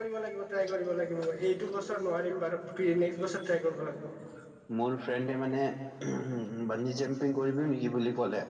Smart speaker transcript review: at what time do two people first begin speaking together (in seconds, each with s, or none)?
none